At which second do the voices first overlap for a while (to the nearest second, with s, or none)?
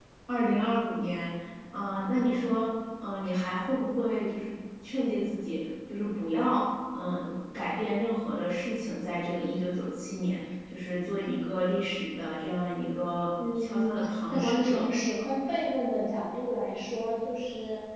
13 s